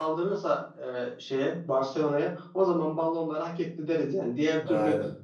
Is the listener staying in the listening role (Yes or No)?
Yes